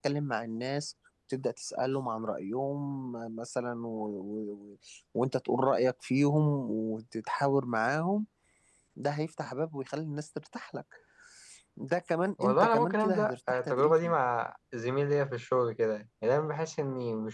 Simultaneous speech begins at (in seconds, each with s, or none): 12.4 s